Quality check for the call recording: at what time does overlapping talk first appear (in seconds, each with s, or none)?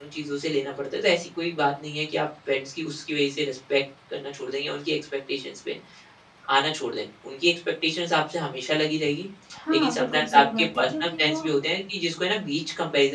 9.7 s